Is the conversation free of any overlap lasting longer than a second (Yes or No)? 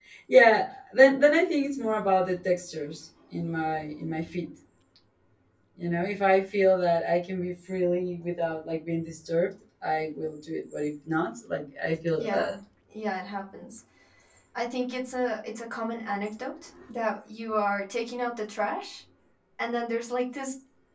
Yes